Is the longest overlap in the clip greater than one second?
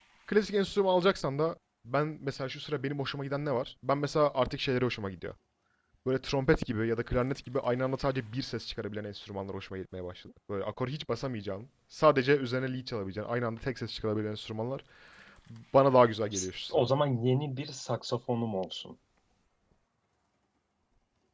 No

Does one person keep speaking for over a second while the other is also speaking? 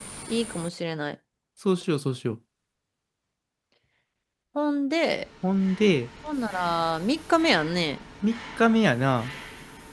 No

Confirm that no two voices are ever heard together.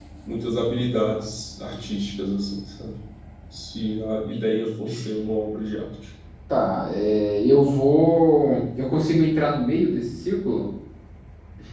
Yes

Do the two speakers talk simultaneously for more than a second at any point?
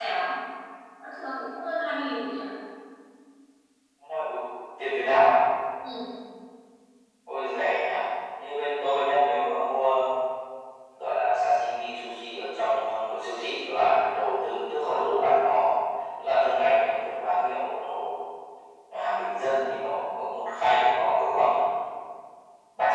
No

